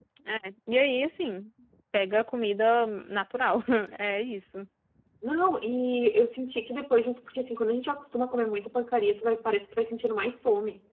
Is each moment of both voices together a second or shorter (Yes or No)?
Yes